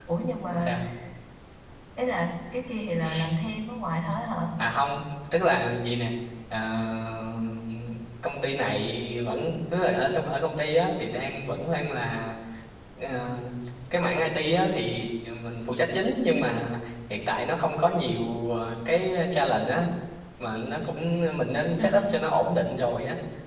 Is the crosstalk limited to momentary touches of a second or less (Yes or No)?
Yes